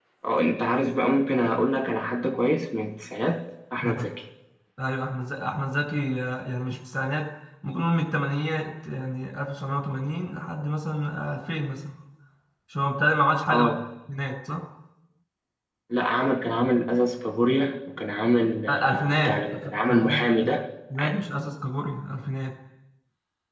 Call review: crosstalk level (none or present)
present